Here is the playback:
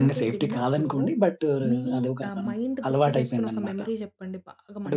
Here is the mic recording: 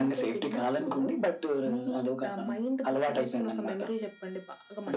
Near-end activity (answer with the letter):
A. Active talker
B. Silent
B